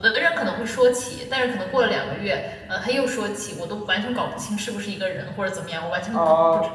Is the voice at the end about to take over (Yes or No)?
Yes